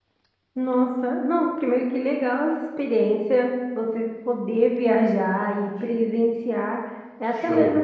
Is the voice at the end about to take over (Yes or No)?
No